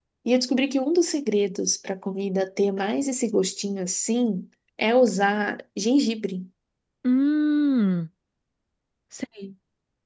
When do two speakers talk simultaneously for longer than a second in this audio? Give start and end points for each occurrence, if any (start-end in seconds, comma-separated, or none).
none